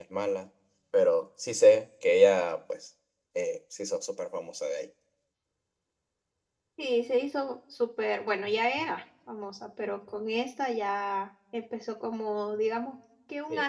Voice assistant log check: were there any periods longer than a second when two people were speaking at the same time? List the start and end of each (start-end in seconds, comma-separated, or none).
none